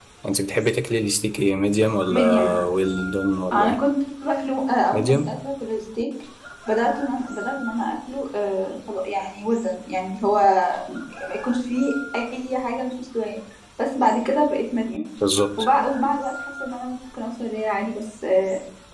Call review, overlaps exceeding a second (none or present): none